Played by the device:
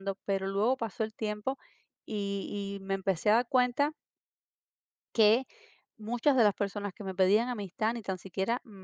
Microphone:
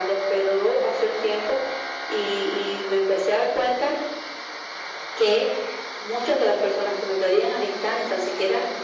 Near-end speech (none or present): none